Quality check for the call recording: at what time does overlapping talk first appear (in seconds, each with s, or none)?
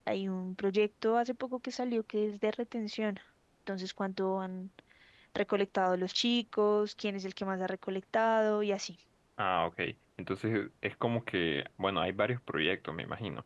none